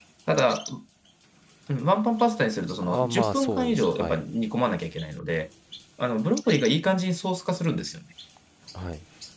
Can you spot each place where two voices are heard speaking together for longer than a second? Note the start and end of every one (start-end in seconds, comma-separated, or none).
2.8-4.2